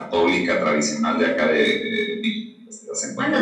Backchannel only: No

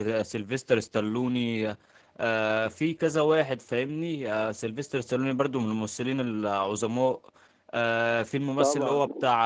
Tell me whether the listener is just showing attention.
Yes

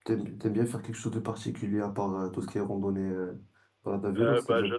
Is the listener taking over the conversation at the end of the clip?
Yes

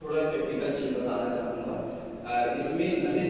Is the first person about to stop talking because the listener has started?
No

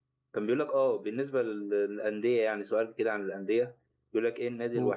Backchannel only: Yes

